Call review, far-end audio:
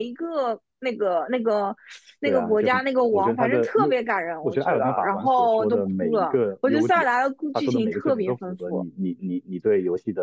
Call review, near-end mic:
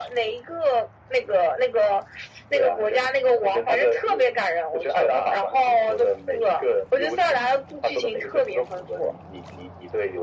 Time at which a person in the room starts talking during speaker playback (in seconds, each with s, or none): none